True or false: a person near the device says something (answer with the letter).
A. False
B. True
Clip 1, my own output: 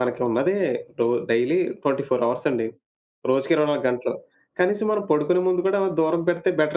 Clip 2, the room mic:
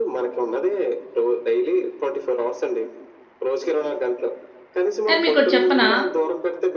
B